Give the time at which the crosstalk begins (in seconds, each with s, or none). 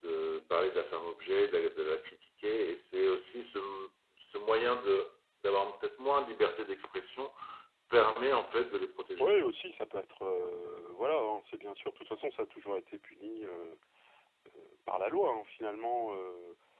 none